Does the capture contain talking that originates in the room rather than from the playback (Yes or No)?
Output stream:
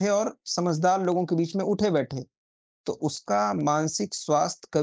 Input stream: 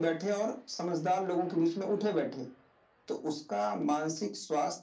No